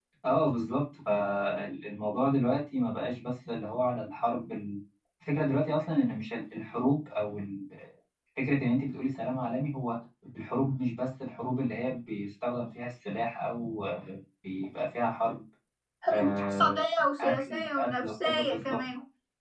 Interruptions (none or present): present